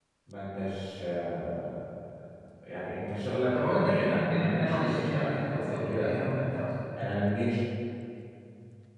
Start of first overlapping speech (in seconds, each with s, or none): 3.5 s